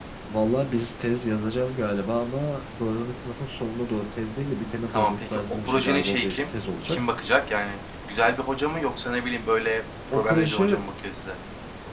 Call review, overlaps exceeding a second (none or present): present